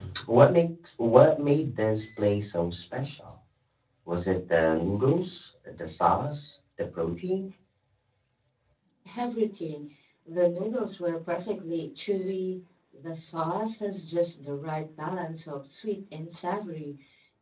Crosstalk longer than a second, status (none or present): none